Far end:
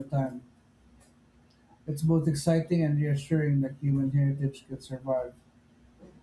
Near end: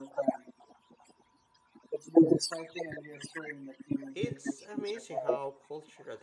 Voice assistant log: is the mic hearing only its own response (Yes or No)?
No